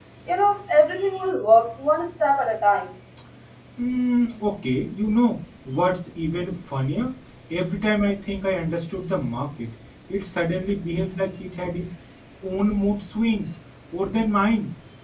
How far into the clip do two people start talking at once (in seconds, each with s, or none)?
none